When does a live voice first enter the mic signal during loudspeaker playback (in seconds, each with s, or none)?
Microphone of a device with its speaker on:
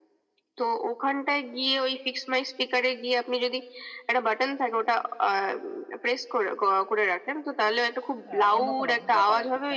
8.3 s